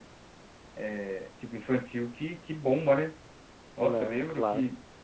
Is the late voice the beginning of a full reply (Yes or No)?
No